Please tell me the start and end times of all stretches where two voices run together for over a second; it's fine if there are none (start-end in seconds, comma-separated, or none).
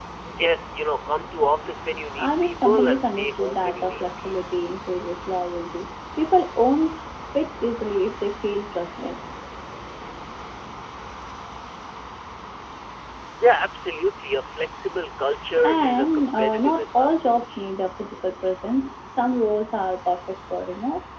2.2-4.7, 15.6-17.7